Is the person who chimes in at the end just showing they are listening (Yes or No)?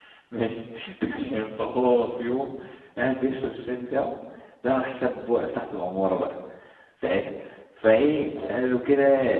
Yes